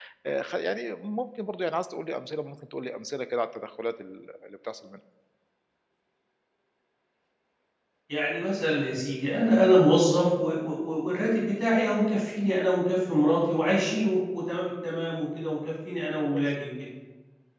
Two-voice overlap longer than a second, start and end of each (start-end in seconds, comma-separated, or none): none